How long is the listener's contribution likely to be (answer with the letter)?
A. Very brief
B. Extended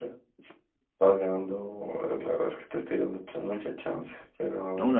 B